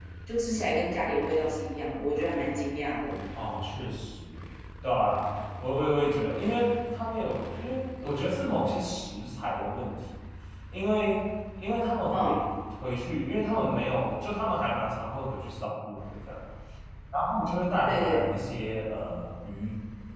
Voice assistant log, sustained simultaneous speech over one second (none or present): none